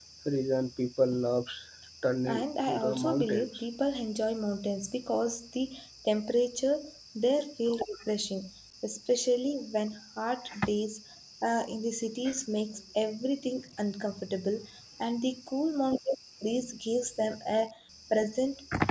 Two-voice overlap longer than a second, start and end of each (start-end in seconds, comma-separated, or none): 2.3-3.6